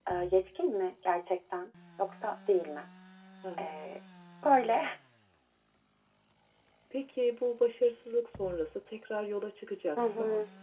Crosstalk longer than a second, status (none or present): none